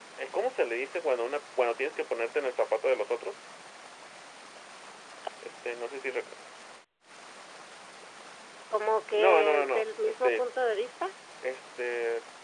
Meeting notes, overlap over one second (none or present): present